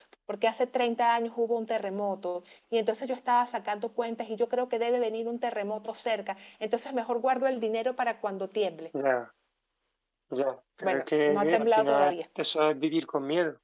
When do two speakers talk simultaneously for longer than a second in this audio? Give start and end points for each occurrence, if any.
10.8-12.1

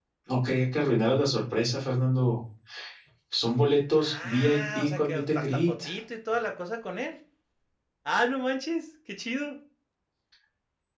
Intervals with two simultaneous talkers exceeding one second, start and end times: 4.0-5.8

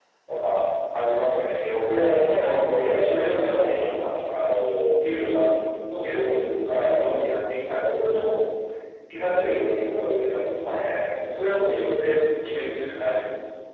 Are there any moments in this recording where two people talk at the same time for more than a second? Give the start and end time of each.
1.6-3.8

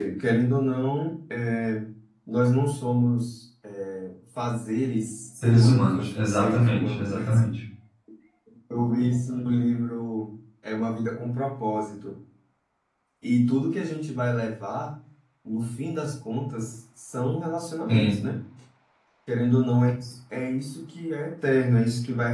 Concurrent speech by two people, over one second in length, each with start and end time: 5.4-7.2

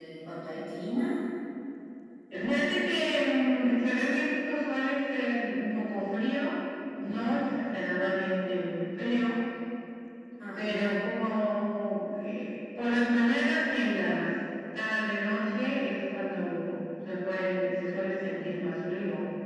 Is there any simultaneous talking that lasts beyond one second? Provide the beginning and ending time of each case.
none

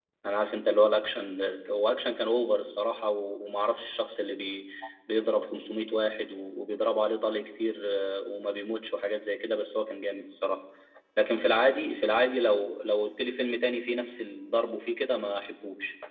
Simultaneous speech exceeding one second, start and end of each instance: none

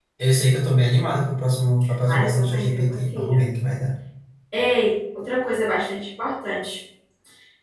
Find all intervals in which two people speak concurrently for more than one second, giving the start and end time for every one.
2.1-3.4

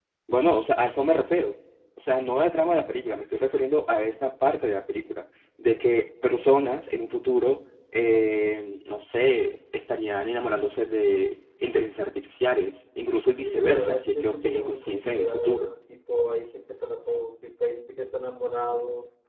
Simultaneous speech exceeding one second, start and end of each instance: 13.4-15.7

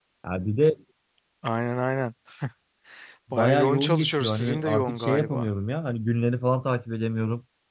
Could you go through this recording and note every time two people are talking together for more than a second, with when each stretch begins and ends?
3.3-5.5

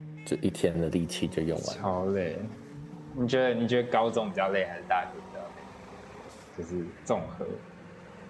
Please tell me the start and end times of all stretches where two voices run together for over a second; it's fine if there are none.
none

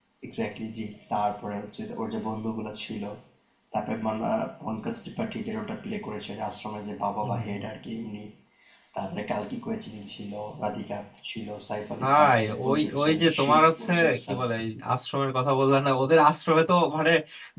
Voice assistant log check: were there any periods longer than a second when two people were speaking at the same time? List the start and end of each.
12.0-14.4

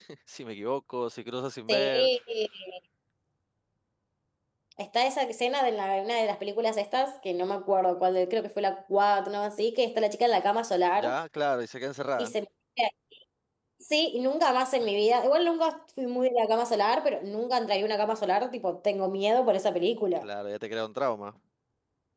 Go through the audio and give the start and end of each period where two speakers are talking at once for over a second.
none

